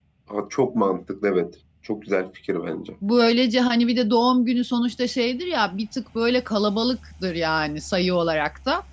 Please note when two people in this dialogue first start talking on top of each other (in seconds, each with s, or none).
none